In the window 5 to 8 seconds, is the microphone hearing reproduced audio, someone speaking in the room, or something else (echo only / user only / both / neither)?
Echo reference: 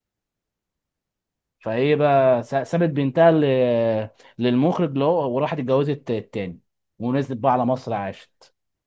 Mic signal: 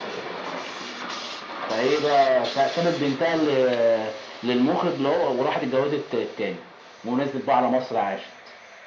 echo only